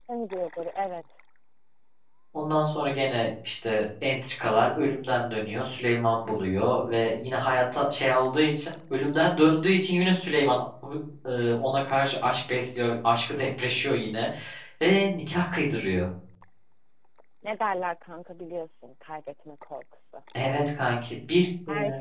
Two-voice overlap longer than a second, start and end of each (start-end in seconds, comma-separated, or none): none